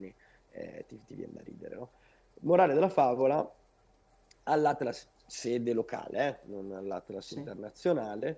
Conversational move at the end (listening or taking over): listening